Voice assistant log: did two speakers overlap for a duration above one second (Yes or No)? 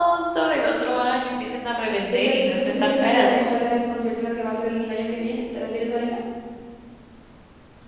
Yes